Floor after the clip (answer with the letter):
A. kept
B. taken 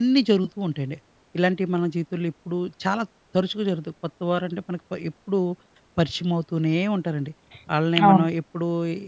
A